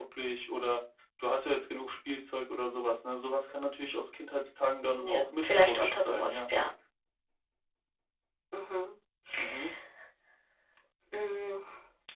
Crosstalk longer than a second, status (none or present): present